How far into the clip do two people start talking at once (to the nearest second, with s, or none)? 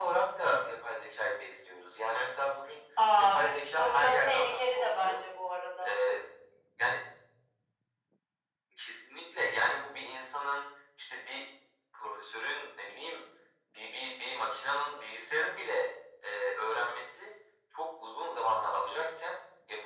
3 s